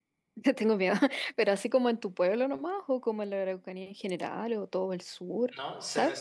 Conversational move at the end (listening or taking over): taking over